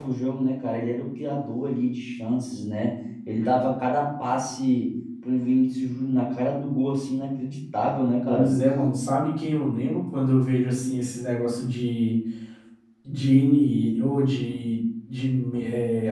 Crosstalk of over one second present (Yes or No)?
No